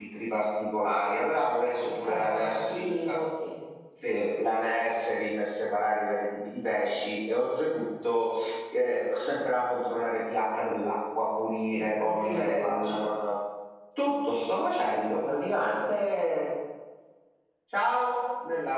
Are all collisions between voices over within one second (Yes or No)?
No